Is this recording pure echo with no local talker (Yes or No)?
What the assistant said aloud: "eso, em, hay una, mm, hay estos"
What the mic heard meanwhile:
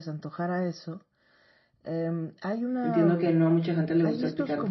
No